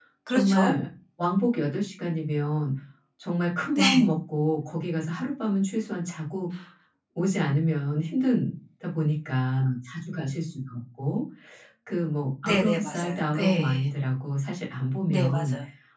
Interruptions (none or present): present